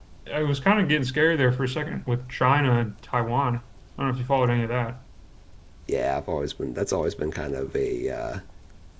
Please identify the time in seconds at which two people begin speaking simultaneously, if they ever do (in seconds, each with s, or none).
none